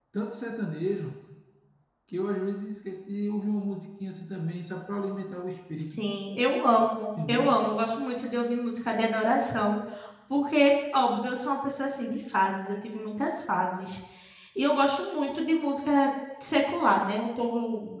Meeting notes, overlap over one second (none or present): none